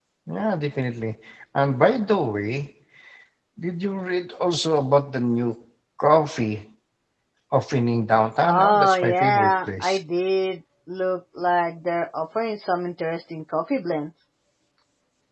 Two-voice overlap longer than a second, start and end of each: 8.4-10.0

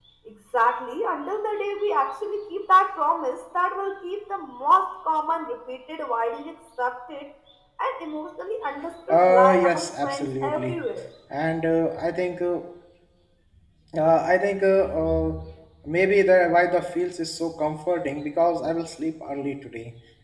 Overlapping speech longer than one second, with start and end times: 9.1-10.8

